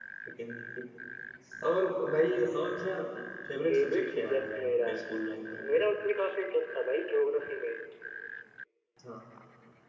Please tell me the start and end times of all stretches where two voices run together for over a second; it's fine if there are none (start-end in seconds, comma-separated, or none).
3.7-4.9